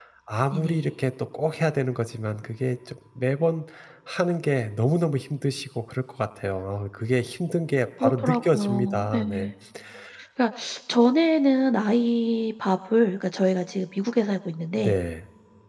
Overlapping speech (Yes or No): Yes